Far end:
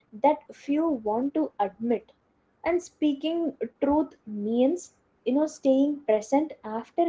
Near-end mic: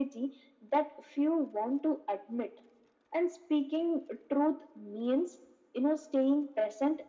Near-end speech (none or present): none